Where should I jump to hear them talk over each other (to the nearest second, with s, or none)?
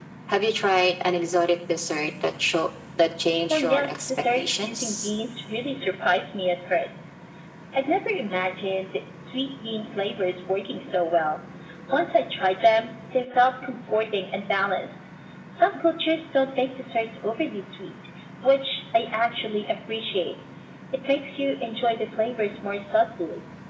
4 s